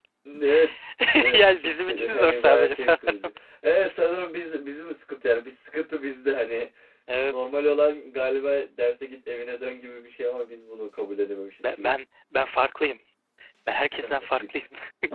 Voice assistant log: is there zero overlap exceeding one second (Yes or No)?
No